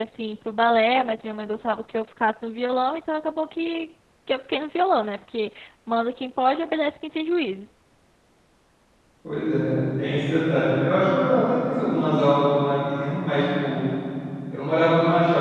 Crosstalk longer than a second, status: none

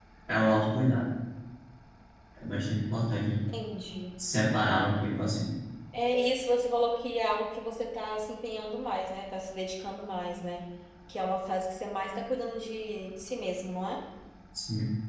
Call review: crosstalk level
none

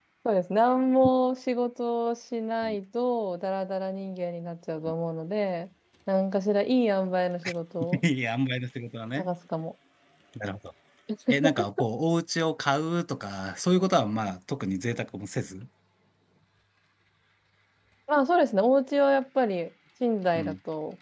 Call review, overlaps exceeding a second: none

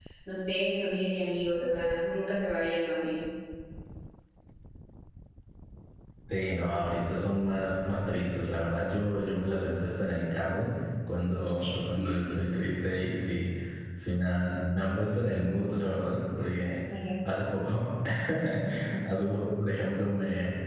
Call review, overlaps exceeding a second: none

